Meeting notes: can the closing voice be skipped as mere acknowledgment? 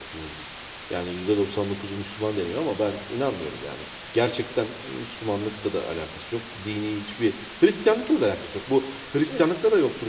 Yes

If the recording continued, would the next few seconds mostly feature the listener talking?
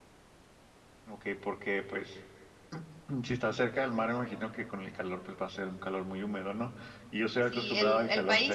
Yes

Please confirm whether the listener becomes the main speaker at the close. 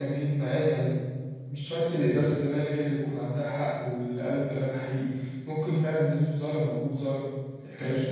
Yes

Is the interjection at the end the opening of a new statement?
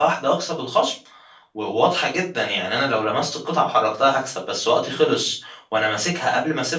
No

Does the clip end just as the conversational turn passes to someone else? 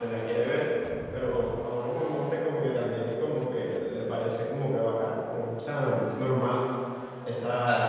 Yes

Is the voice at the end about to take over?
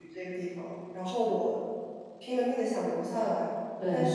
No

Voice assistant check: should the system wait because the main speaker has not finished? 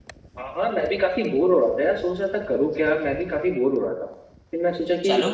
Yes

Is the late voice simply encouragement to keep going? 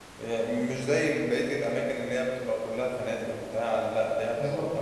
No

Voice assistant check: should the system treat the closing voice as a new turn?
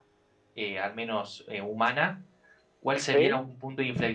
No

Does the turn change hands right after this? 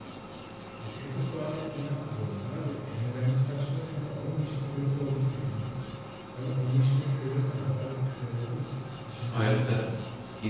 Yes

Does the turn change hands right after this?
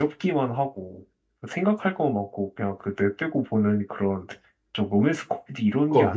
Yes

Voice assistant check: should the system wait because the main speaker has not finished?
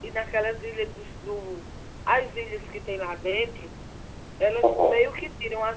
Yes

